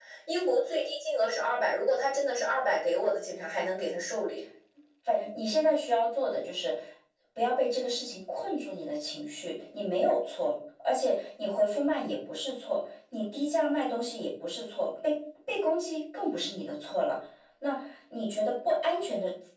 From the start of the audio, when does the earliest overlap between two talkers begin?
none

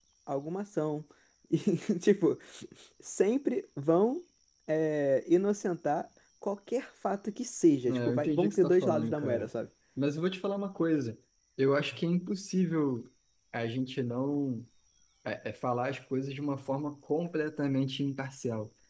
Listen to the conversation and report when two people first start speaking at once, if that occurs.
7.9 s

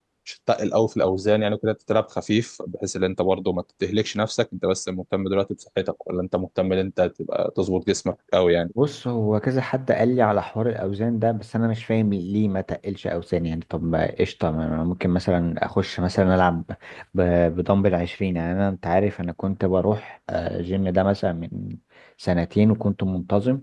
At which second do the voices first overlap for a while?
none

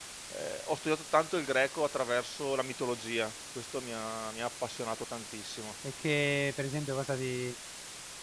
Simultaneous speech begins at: none

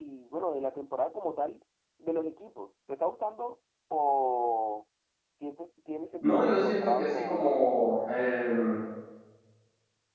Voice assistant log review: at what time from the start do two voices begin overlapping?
6.2 s

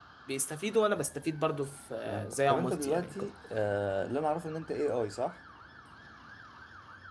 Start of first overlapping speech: 2.0 s

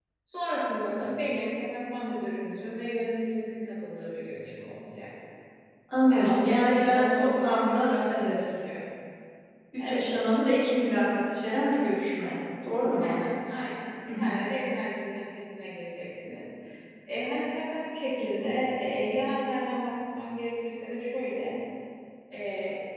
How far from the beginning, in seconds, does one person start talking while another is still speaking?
6.1 s

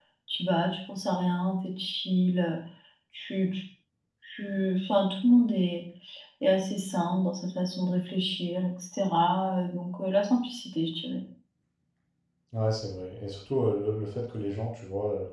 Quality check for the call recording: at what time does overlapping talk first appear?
none

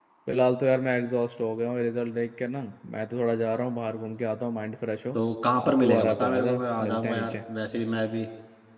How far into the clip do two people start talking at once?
5.6 s

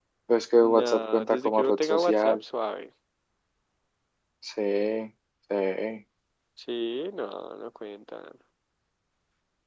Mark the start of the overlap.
0.6 s

